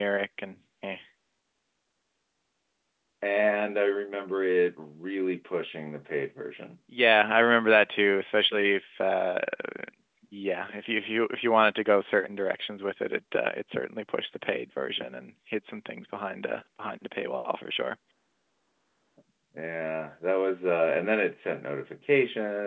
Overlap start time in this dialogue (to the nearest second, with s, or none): none